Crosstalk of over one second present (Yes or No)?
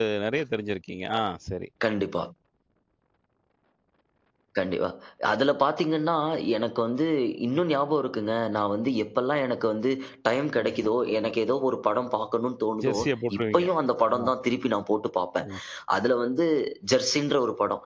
No